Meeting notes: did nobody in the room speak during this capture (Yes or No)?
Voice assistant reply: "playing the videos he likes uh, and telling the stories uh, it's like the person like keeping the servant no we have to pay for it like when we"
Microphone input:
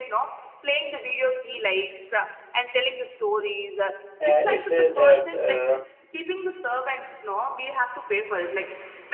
No